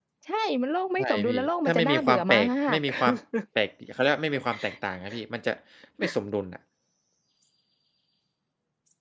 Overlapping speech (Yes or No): Yes